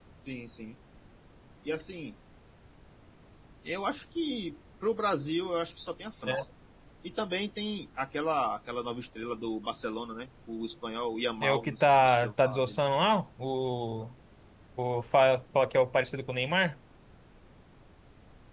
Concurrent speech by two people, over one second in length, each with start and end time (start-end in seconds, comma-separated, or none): 11.4-12.8